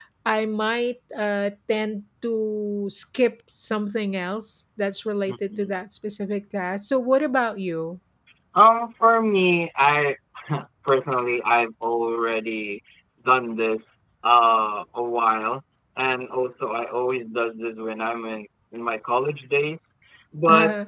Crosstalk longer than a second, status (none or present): none